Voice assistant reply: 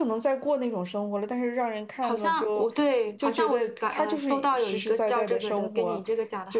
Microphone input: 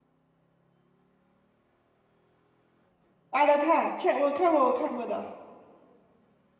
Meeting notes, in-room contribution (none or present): present